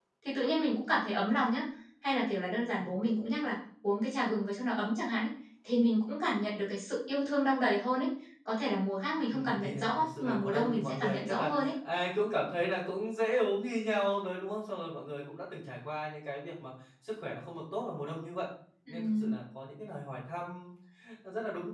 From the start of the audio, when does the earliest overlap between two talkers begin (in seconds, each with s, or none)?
9.3 s